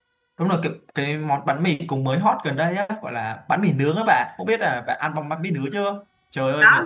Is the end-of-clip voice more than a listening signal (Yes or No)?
No